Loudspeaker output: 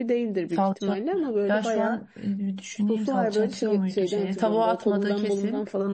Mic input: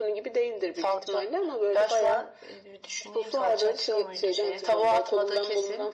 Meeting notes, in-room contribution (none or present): none